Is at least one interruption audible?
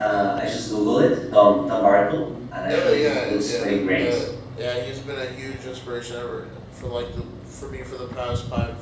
Yes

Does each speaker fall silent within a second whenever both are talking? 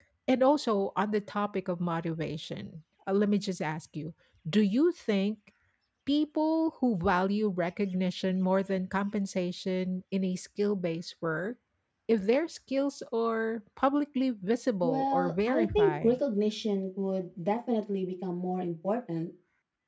No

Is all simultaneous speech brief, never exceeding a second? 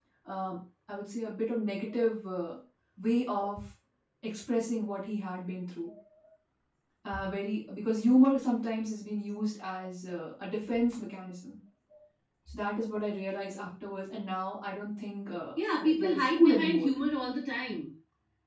No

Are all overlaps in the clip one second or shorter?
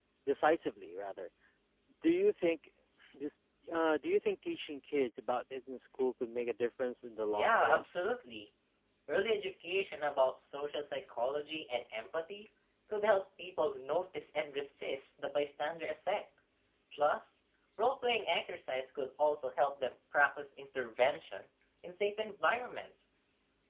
Yes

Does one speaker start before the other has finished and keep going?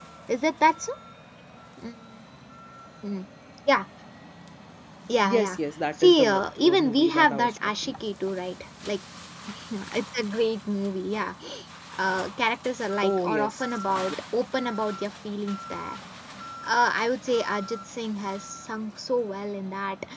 Yes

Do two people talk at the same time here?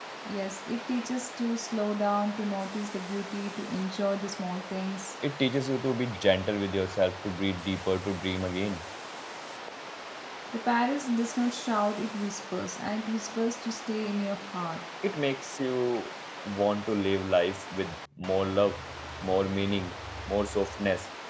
No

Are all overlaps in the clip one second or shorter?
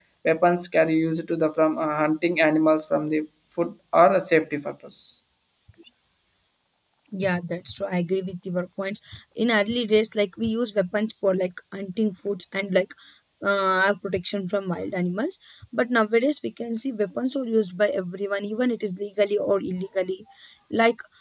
Yes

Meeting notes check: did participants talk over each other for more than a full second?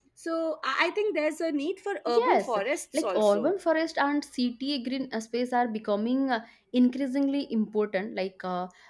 No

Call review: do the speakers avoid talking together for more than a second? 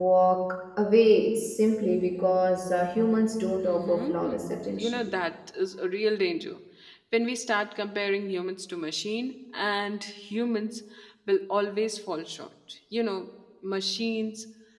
No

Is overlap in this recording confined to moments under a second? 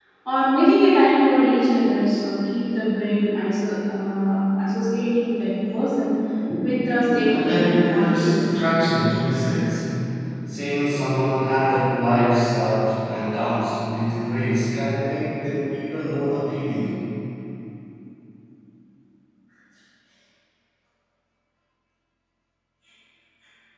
No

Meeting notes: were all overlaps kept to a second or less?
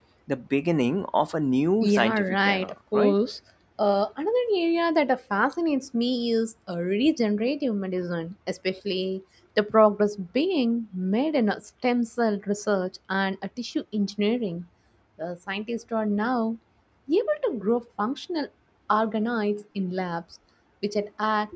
No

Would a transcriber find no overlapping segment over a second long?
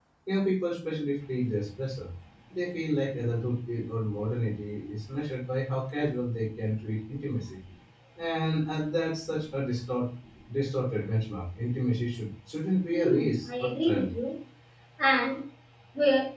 No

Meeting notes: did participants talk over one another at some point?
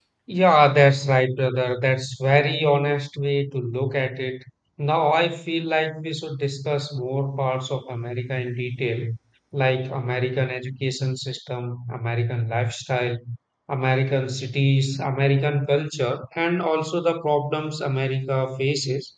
No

